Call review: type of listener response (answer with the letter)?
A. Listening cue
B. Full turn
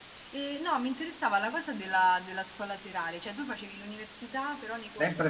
B